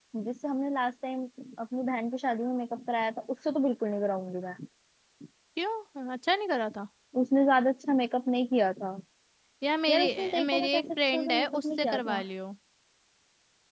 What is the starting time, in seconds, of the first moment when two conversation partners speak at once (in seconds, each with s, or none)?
9.9 s